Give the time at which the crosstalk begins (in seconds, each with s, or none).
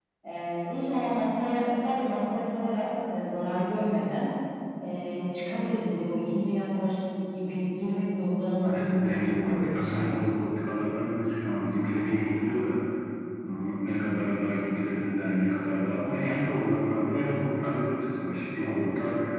8.6 s